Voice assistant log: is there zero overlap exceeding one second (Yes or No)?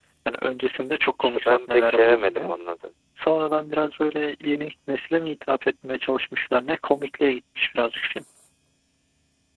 No